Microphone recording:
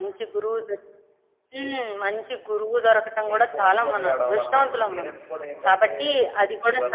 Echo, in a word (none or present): present